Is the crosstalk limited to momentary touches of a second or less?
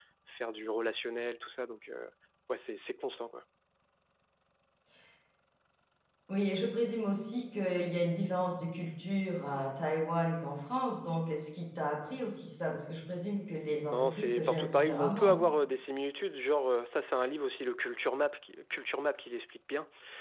No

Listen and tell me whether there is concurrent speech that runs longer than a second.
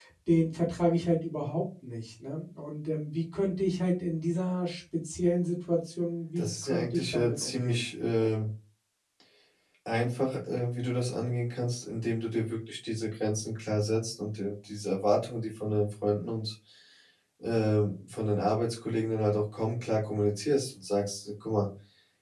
Yes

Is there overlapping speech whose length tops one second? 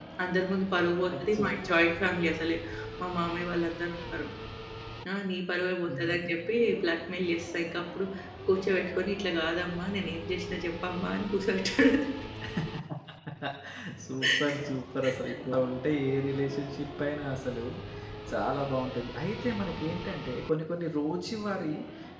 No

